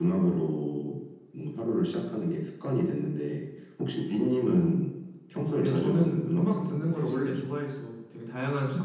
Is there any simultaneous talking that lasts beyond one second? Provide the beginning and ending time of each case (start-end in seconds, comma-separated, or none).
5.6-7.4